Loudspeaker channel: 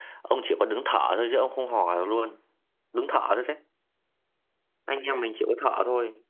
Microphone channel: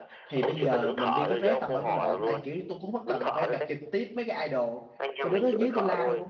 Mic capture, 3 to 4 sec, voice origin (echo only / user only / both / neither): both